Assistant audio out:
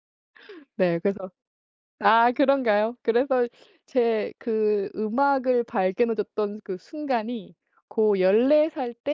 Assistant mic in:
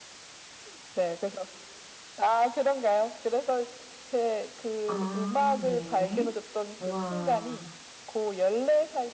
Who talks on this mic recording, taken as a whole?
both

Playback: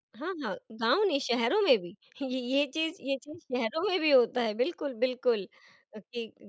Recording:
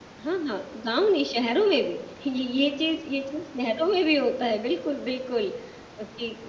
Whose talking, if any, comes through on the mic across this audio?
echo only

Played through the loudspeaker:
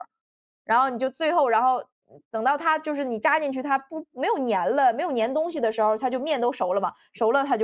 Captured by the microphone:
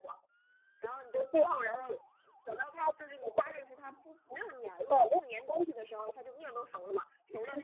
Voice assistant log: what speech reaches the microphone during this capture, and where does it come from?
echo only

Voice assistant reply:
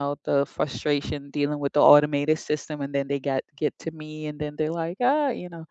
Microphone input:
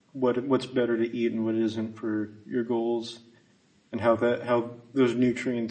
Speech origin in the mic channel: user only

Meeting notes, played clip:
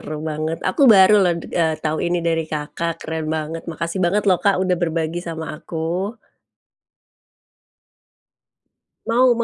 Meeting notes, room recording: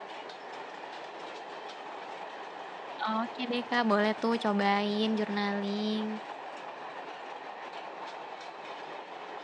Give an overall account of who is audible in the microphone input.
user only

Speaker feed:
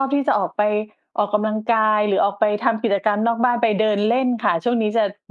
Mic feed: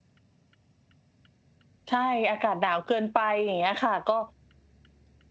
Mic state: user only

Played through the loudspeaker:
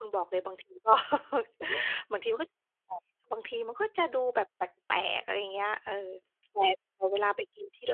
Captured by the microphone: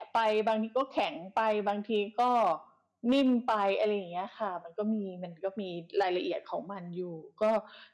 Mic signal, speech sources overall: user only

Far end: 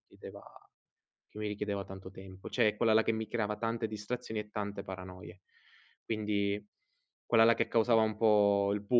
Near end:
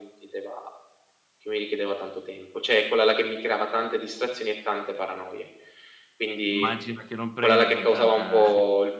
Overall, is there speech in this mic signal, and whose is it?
both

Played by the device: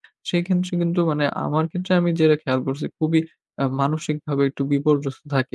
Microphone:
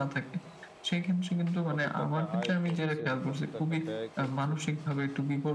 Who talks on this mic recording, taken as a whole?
both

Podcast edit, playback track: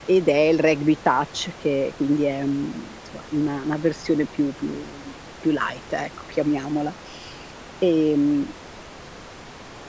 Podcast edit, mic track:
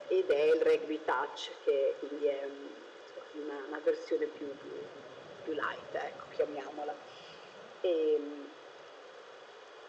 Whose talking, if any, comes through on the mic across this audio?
echo only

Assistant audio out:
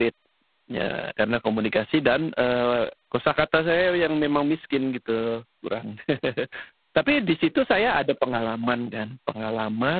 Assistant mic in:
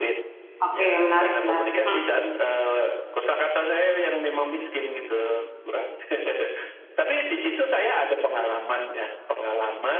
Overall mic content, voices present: both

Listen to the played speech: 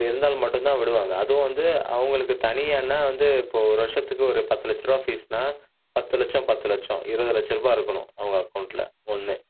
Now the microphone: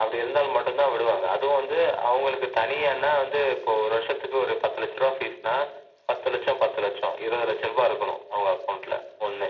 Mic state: echo only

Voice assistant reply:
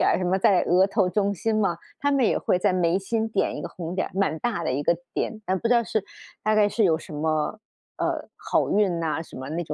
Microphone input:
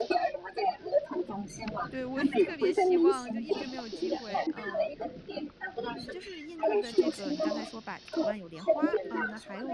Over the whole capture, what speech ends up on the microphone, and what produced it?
both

